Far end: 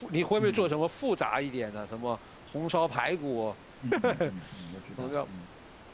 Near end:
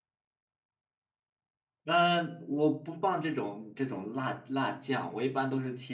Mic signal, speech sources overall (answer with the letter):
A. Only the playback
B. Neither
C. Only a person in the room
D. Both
C